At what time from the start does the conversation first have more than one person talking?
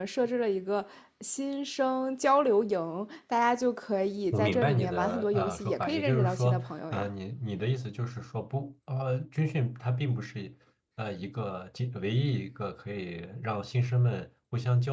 4.3 s

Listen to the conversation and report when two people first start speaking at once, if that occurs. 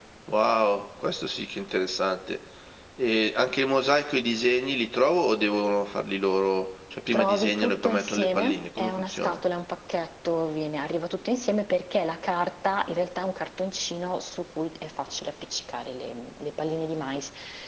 7.1 s

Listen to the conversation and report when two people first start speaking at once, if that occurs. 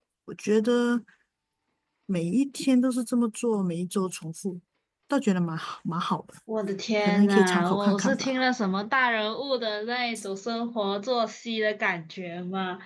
7.0 s

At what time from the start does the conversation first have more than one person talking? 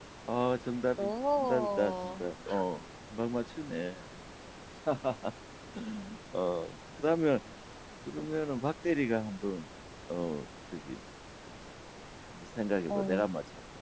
1.0 s

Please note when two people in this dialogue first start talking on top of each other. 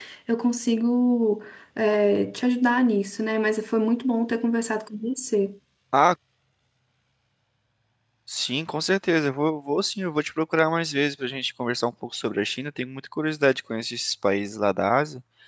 none

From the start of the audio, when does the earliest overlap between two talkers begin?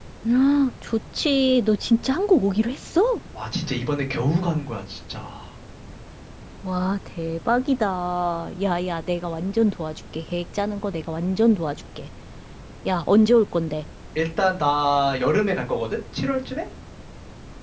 none

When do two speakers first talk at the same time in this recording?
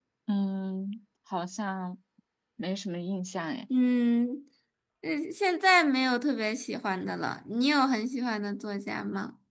none

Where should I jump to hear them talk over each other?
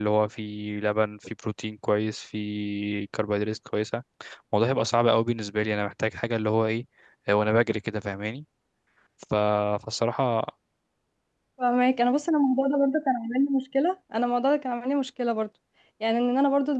none

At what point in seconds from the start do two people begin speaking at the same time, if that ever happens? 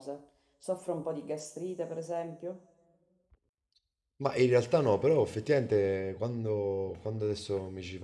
none

